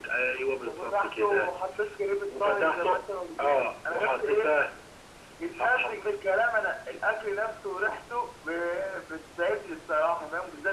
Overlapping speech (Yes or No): Yes